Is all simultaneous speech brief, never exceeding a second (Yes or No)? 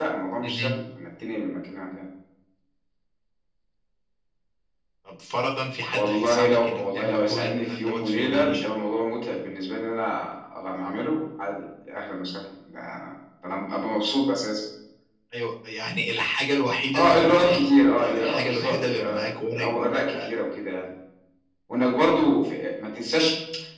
No